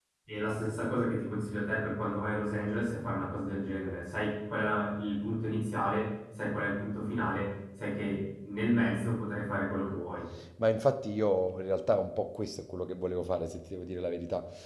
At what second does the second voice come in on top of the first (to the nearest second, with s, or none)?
none